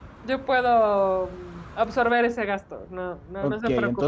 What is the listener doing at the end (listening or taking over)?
taking over